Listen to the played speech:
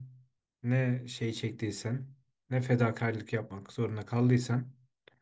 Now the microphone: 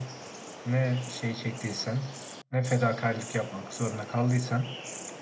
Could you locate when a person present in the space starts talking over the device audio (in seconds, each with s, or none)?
none